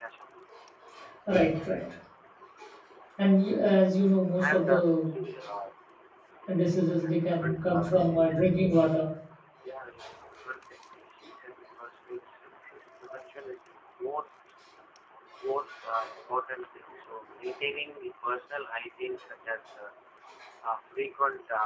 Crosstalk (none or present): present